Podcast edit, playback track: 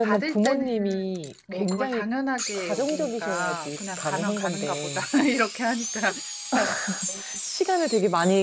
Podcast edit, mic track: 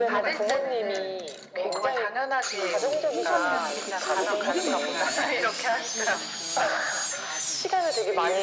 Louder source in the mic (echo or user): echo